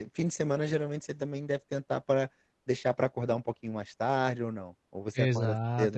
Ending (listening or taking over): taking over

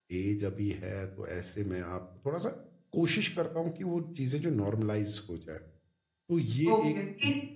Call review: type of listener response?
taking over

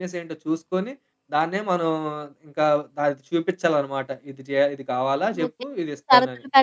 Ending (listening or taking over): taking over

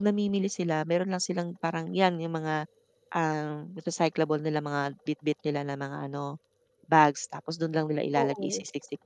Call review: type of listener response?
listening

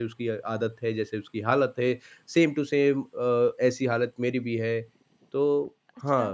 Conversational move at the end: taking over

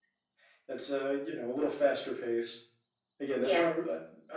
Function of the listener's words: listening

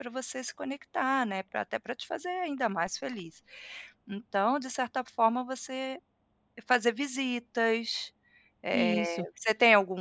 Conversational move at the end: listening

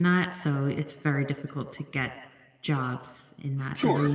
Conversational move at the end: taking over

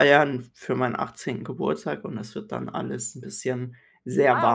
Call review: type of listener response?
taking over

